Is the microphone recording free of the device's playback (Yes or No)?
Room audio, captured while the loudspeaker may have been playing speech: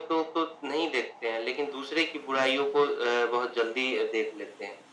No